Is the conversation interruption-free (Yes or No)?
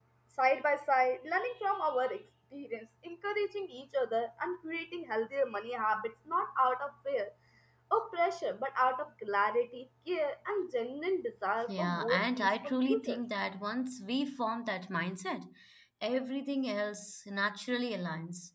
No